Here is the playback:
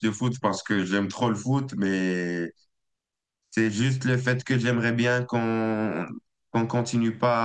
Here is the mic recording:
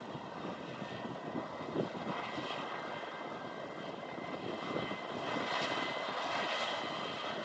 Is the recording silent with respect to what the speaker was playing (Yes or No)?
Yes